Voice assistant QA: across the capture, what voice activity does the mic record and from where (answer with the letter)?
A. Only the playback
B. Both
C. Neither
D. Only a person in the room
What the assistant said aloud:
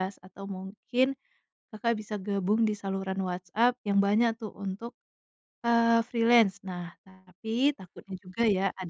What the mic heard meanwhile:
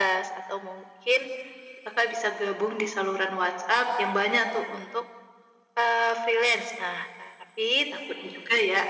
A